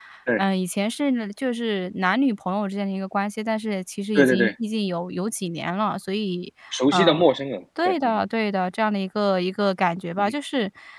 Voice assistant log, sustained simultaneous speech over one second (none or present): none